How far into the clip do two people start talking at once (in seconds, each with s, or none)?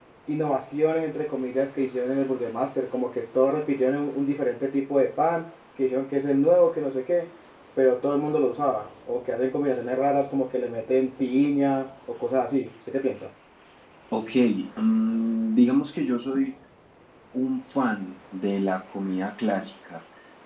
none